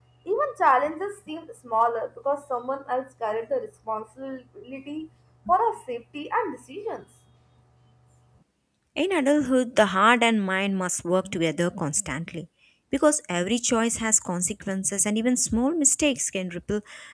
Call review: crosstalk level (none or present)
none